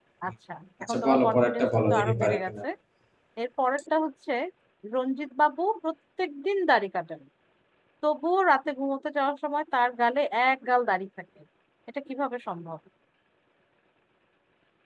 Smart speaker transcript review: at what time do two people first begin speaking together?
1 s

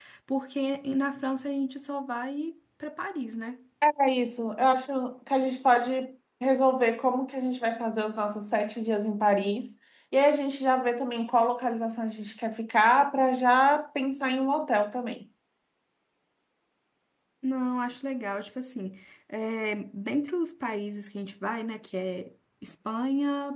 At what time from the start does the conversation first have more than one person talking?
none

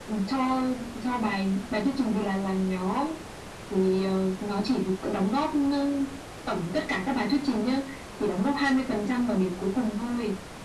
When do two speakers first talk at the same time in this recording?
none

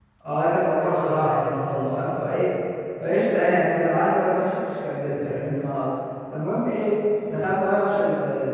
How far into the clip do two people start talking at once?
1 s

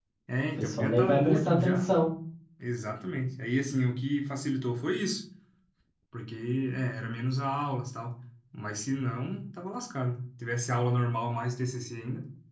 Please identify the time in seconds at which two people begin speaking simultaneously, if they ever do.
1 s

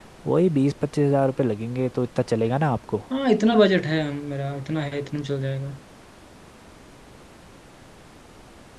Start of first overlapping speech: none

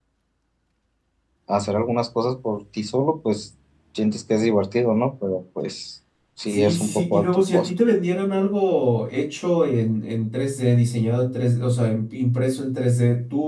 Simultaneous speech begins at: 6 s

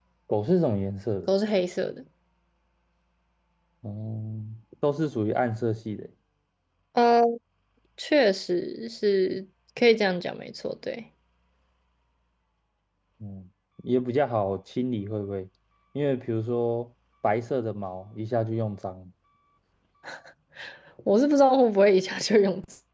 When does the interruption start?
none

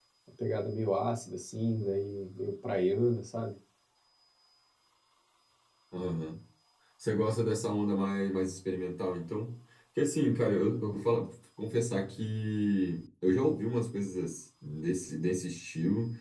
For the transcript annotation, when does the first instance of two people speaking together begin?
none

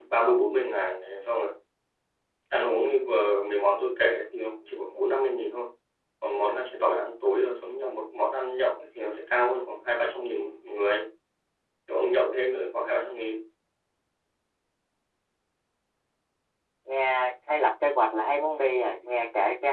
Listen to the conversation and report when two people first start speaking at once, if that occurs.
none

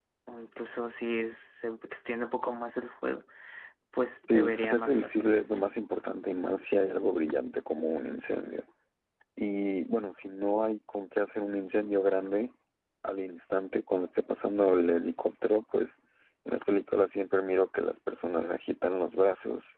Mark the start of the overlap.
4 s

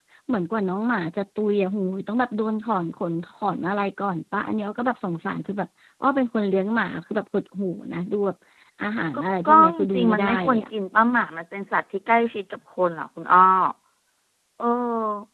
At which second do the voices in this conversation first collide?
9 s

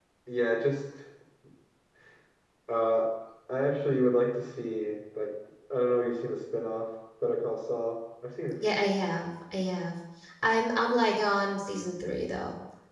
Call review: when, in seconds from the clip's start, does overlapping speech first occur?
none

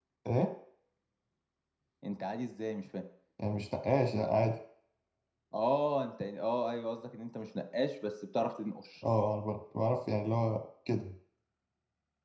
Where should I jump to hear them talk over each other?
none

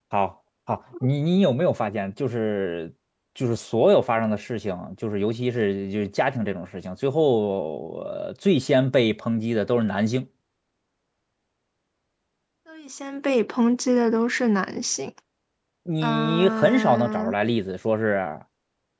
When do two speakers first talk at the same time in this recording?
16 s

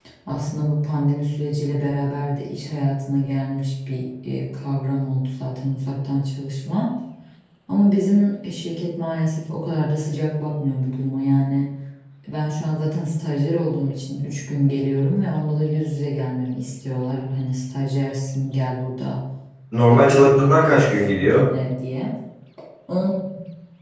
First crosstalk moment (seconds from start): 20 s

